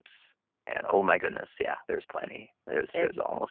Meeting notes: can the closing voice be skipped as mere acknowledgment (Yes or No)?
No